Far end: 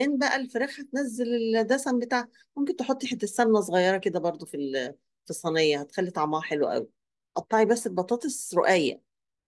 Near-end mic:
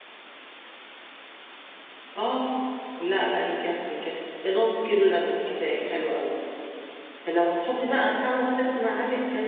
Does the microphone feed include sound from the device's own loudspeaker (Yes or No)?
No